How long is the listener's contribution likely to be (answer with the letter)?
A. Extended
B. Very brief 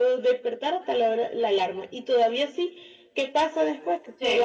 B